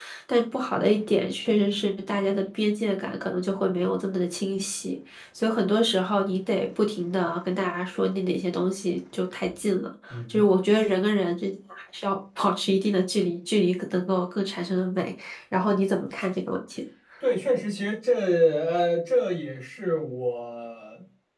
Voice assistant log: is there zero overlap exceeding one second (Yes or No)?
Yes